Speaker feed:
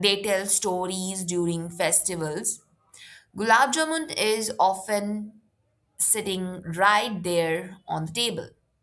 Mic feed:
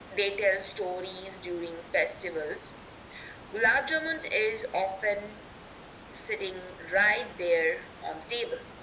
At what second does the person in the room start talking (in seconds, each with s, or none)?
none